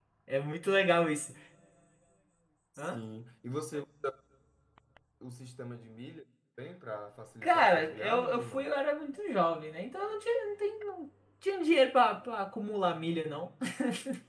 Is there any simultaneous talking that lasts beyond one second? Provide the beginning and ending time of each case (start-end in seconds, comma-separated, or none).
7.4-8.7